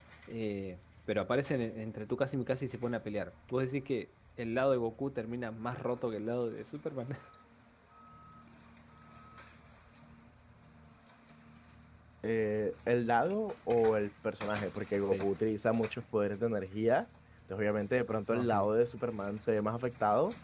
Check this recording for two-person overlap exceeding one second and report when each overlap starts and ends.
none

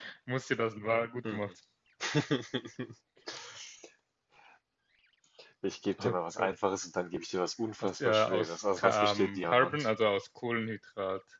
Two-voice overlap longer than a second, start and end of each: 7.8-9.9

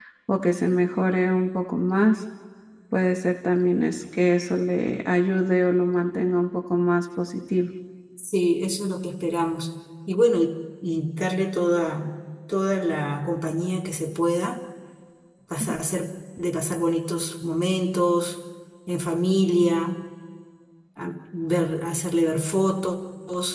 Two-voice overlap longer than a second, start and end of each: none

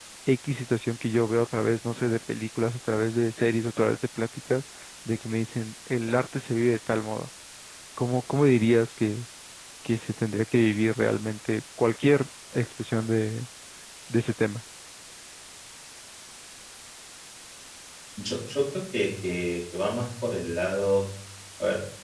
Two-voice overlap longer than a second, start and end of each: none

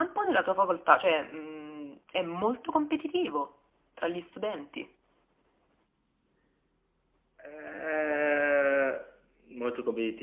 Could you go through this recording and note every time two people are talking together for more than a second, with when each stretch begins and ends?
none

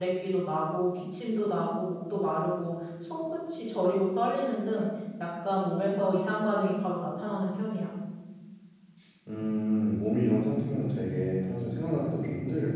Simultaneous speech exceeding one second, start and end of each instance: none

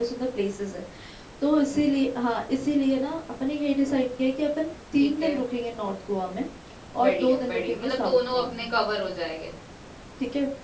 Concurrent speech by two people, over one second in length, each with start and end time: 7.0-8.6

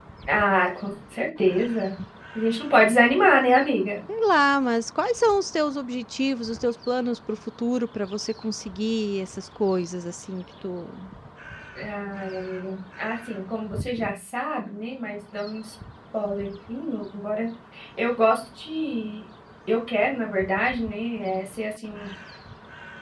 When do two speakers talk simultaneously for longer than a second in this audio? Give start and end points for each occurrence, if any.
none

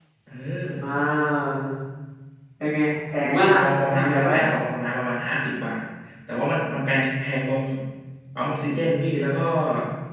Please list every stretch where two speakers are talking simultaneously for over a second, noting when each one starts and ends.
3.2-4.5

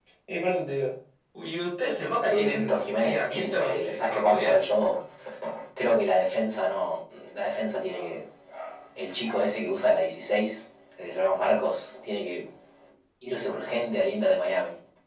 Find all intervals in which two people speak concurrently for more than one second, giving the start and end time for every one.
2.2-4.6

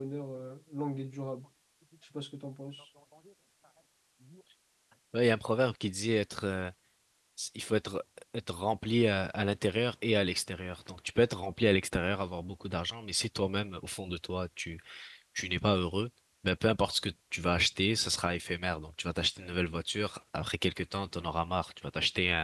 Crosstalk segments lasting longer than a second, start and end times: none

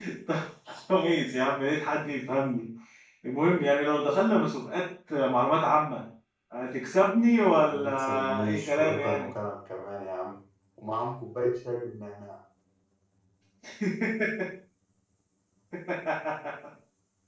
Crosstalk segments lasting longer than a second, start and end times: 7.6-9.3

